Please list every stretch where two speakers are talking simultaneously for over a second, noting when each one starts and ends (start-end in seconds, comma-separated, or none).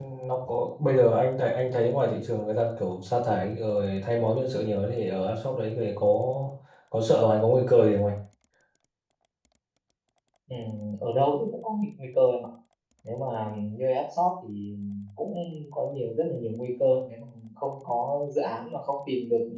none